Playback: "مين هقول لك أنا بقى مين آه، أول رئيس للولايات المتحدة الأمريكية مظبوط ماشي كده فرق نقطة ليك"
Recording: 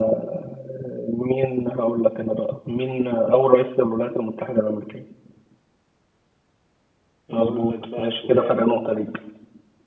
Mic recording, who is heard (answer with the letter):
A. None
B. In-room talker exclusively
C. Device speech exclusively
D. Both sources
D